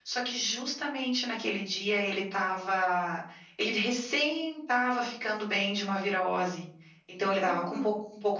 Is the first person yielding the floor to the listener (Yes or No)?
No